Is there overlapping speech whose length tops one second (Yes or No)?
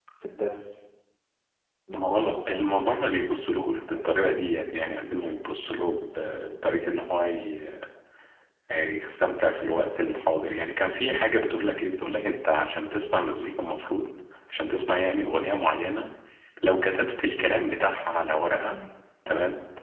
Yes